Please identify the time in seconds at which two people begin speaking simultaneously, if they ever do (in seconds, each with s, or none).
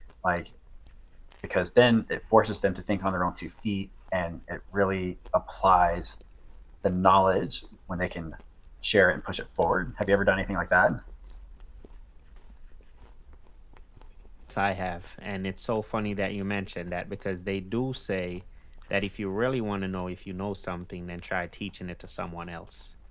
none